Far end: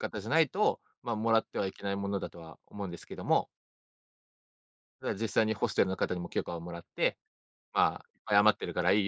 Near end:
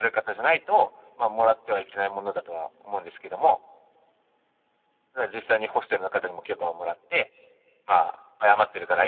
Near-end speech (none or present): none